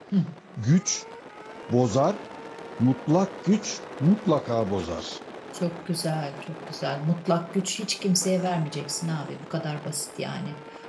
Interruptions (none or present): none